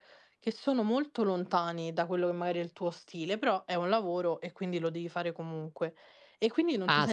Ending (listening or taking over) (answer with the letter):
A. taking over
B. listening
A